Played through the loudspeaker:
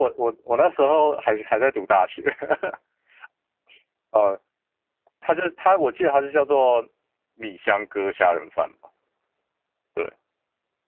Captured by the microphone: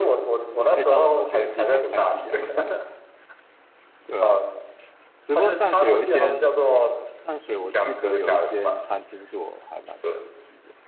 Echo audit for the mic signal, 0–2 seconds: both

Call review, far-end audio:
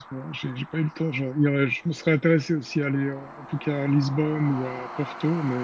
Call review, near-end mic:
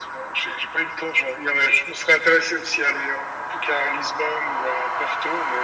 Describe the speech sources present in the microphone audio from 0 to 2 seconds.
echo only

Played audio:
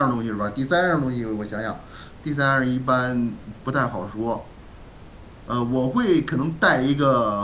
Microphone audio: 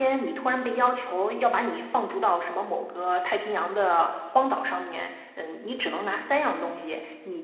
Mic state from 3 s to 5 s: user only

